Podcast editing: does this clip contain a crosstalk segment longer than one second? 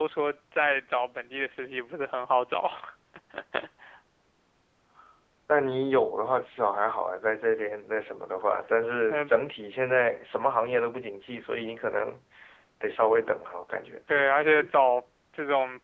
No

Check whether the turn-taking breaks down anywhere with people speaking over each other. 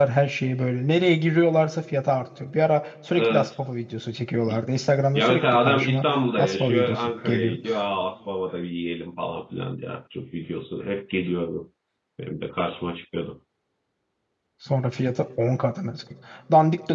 Yes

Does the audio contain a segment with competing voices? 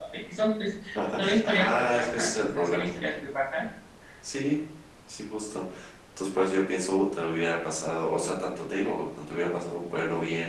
Yes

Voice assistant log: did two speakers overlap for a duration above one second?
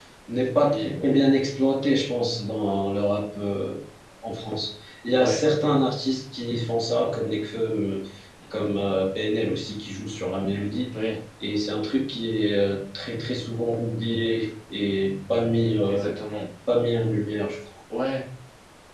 No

